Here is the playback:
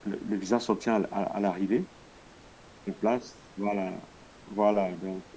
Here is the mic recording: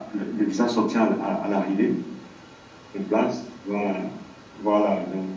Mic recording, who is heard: echo only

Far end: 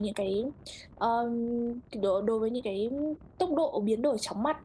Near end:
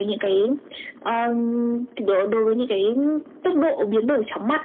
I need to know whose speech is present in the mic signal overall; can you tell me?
echo only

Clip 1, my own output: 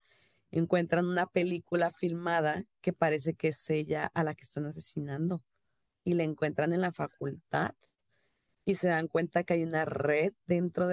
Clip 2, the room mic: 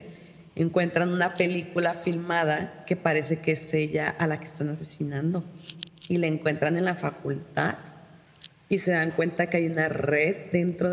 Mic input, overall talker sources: echo only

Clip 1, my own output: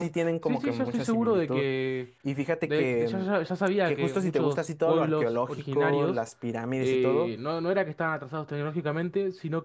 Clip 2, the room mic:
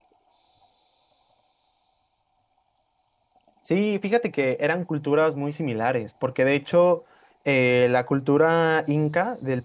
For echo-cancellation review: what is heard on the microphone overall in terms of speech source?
user only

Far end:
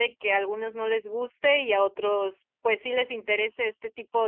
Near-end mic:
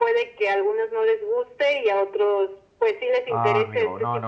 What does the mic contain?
both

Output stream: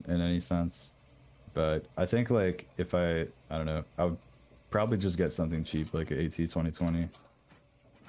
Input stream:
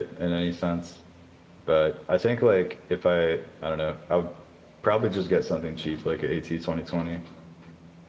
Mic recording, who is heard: echo only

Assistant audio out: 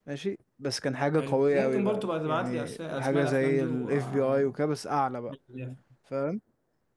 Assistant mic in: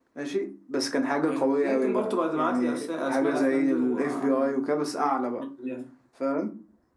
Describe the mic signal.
echo only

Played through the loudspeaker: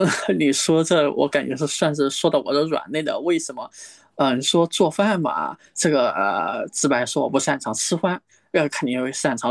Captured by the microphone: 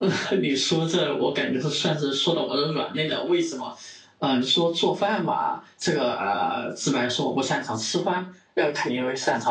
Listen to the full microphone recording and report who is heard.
echo only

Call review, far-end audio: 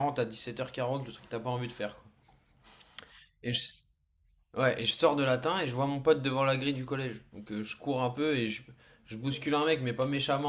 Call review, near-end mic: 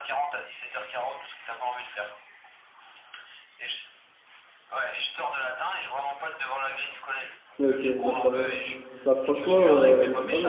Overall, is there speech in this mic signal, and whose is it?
both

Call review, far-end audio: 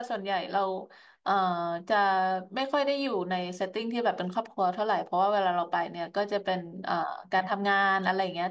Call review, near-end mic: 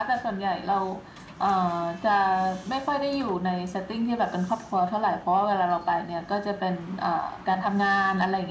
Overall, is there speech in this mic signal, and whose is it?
echo only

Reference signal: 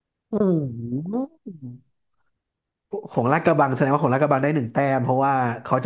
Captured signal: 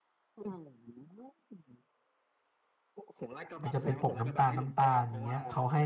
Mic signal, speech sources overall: both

